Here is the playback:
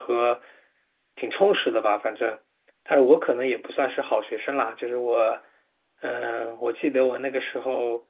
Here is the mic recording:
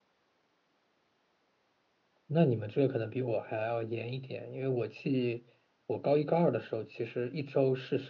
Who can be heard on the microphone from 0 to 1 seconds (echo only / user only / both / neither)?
neither